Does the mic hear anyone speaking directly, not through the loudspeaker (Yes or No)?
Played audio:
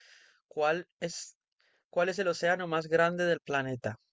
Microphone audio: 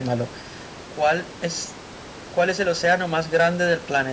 No